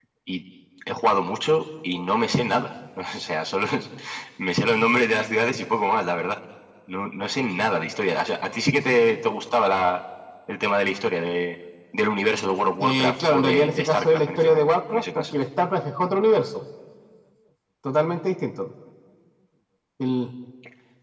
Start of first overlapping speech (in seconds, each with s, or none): 12.8 s